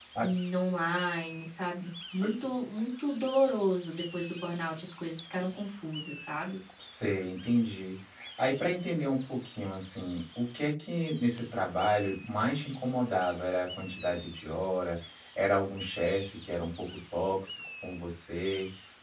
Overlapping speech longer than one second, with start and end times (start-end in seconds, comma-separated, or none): none